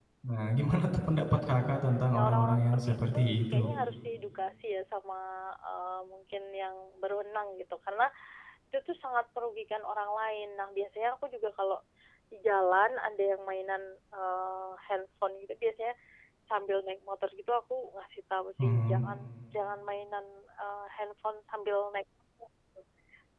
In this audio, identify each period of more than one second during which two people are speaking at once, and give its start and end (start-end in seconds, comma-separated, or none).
2.1-3.7